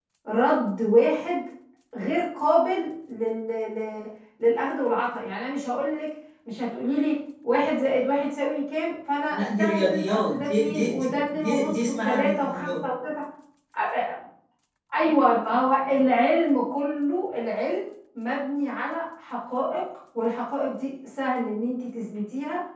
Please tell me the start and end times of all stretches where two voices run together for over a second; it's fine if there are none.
9.3-12.7

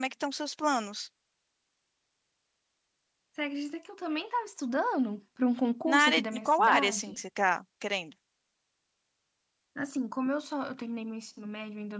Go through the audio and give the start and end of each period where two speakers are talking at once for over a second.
5.9-7.2

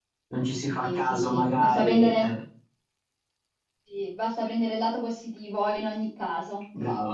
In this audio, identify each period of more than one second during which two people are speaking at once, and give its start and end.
0.8-2.3

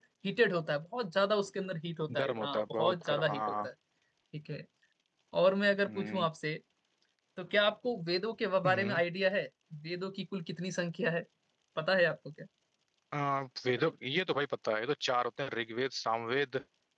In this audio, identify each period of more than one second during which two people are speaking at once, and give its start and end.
2.2-3.7

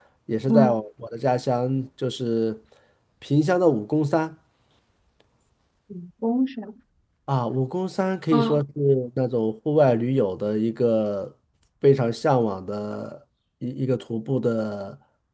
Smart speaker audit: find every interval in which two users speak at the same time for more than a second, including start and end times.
none

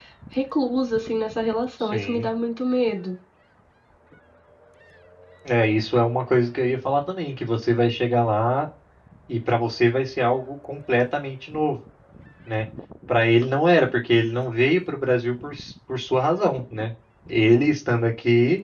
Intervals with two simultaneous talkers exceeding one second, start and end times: none

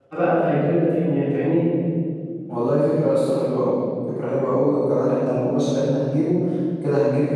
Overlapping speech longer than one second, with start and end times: none

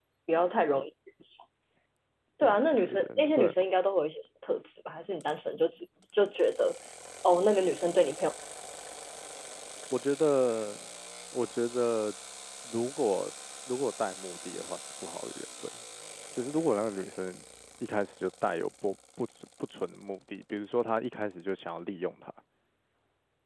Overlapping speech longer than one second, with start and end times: 2.4-3.7

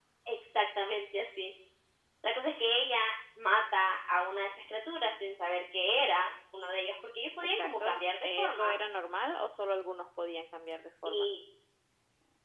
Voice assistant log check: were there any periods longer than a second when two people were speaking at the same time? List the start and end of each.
7.4-8.8

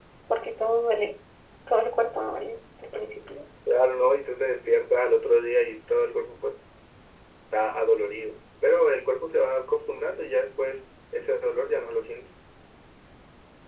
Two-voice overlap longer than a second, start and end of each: none

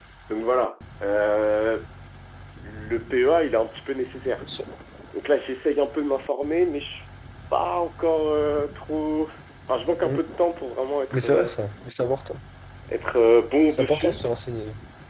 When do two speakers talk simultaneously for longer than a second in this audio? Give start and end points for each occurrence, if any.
none

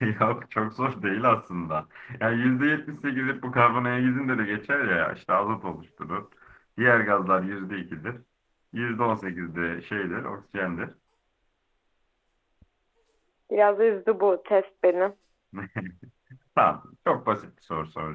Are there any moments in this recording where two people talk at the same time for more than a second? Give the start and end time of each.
none

